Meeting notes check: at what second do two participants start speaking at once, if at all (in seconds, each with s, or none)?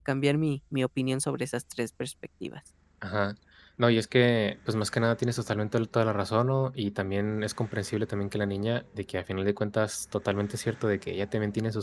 none